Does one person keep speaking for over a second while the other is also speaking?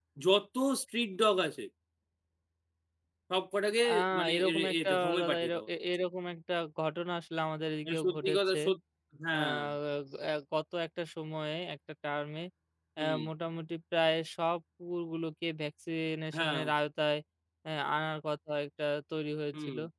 Yes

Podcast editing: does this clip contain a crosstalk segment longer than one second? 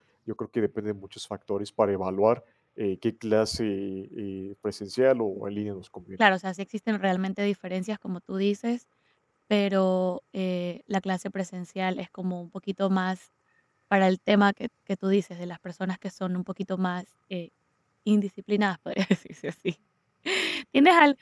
No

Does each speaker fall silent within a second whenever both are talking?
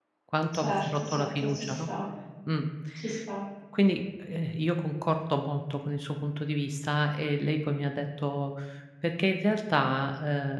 No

